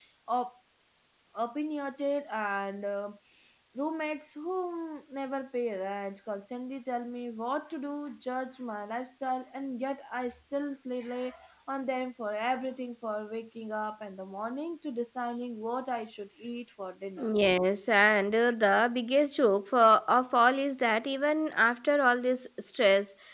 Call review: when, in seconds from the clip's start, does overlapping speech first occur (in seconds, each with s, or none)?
none